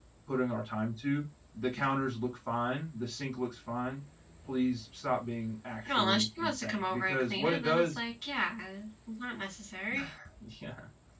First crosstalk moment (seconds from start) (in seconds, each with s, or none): 5.8 s